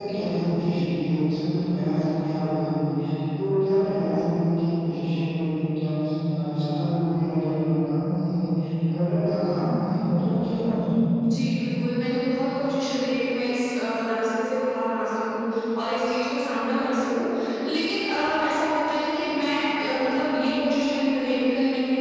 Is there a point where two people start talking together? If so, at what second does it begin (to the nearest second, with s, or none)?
none